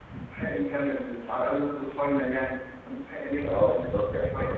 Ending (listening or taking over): taking over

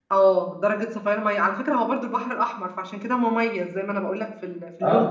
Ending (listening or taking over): taking over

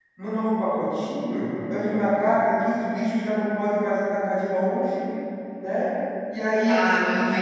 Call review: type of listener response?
taking over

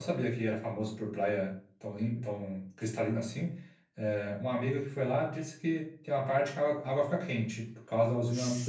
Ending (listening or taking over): taking over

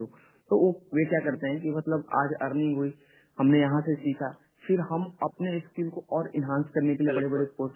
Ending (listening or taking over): listening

